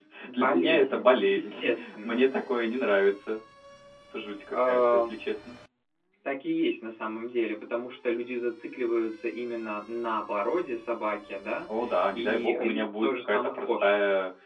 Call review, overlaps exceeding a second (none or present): present